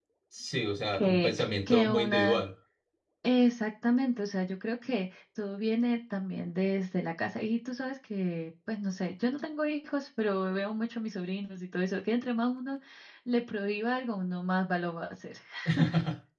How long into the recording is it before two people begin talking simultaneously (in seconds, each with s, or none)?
0.9 s